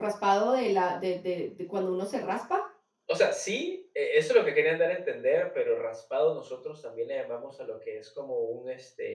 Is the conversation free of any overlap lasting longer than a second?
Yes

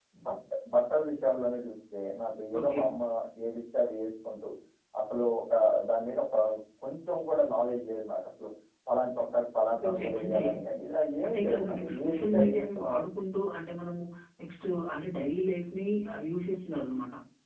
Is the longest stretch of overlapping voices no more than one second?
No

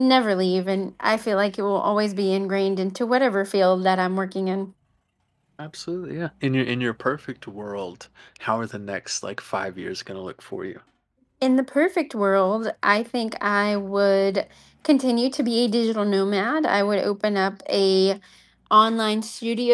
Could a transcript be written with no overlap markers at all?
Yes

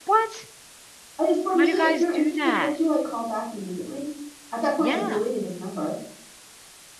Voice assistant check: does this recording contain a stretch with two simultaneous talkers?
Yes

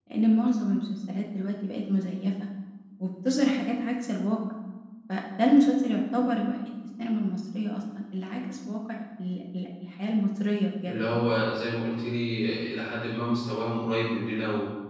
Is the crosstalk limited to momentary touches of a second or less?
Yes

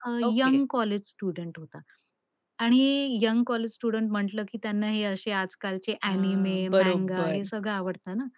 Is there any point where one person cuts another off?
Yes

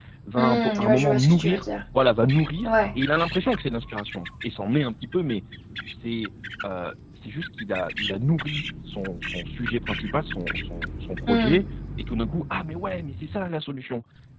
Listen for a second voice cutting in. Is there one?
Yes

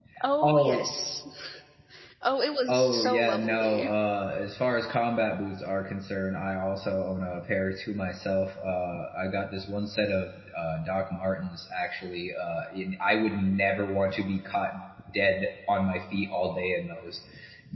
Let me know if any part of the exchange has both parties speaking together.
Yes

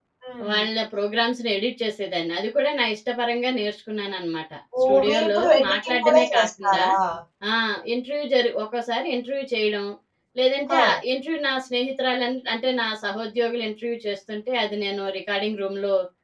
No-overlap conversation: No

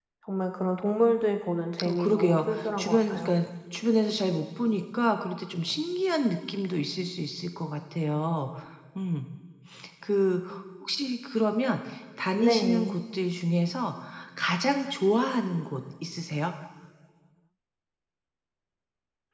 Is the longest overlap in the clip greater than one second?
Yes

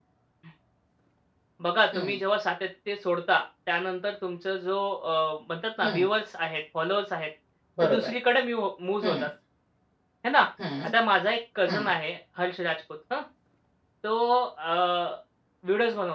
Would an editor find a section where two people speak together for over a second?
No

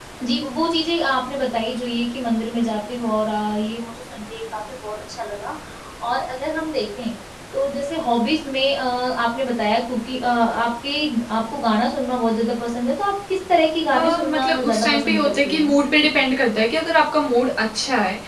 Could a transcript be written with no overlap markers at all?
No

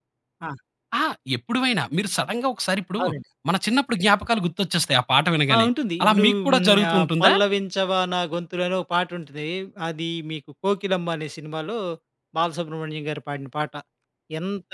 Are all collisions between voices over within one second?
No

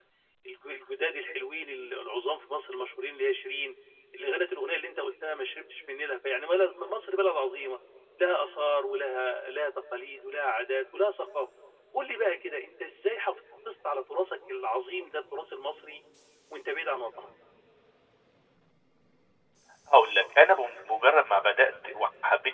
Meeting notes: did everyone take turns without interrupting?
Yes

